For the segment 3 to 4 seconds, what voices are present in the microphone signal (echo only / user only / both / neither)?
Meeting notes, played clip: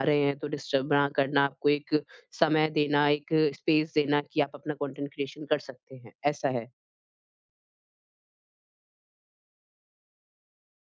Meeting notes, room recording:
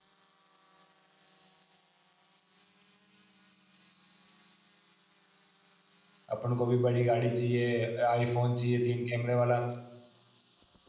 neither